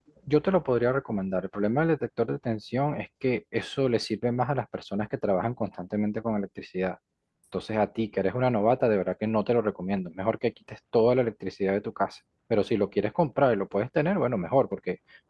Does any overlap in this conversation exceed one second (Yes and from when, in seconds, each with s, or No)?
No